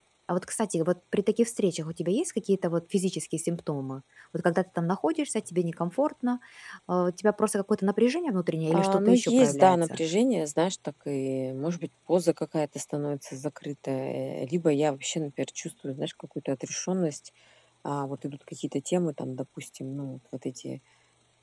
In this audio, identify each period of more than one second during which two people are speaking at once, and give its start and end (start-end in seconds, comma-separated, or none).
8.7-10.0